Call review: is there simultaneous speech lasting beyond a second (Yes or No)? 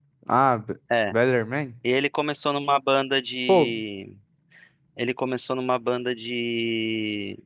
No